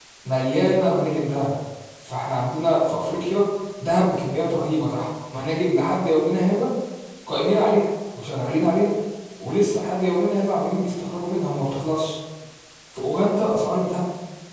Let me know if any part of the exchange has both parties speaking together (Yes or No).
No